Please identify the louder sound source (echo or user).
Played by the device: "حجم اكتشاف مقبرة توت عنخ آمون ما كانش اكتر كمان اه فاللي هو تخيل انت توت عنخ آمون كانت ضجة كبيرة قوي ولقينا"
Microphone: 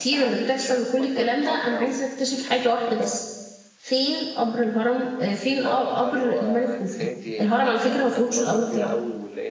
user